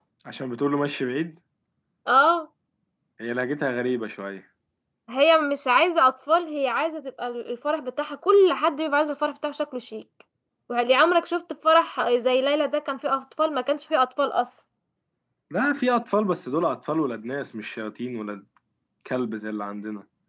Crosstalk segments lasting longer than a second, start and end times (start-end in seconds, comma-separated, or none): none